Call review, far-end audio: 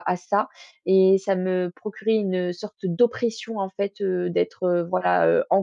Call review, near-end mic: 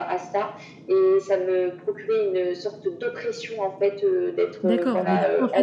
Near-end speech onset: 4.6 s

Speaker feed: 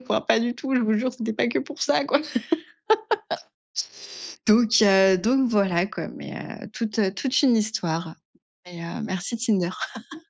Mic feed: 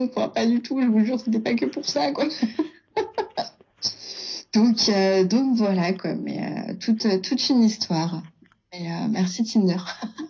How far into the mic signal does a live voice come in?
none

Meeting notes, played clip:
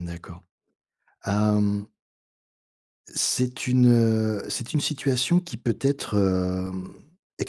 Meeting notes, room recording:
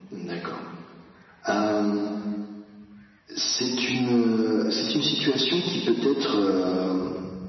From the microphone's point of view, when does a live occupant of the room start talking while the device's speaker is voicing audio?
none

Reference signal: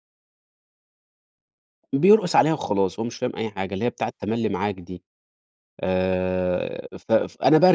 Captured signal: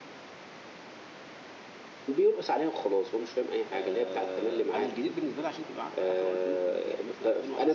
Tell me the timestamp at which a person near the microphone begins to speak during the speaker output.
3.7 s

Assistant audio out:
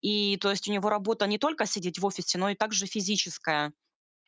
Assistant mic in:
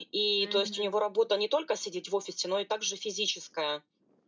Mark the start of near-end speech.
0.4 s

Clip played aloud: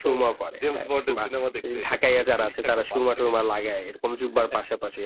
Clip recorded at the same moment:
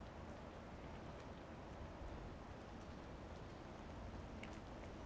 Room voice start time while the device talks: none

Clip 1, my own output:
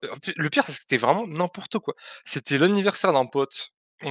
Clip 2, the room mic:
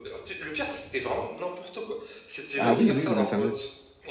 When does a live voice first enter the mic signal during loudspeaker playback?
2.6 s

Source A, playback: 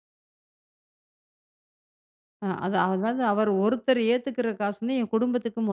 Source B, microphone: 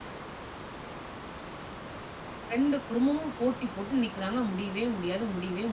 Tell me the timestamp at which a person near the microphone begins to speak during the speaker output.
2.5 s

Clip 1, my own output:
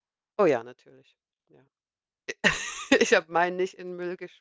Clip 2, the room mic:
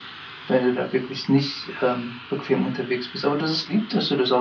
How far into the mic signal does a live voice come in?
0.5 s

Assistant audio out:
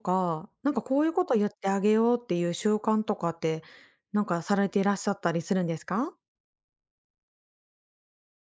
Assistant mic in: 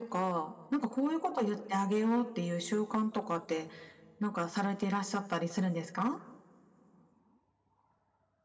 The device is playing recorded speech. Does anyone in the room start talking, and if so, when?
none

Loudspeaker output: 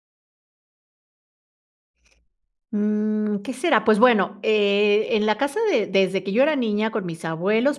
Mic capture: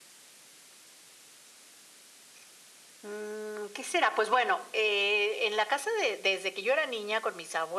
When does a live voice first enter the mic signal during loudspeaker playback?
none

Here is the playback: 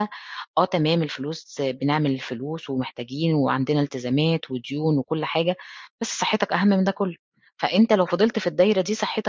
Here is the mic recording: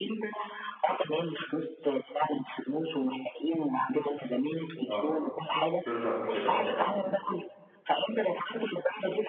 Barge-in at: 4.9 s

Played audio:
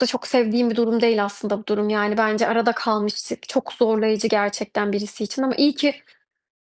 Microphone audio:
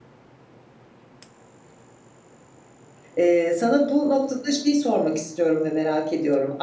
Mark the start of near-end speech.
3.2 s

